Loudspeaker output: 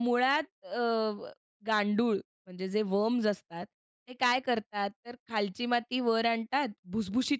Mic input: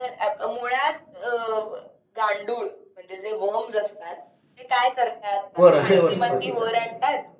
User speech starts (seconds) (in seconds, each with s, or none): 5.6 s